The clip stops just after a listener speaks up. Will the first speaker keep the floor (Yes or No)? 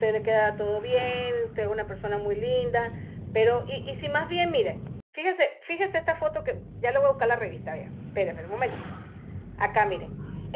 Yes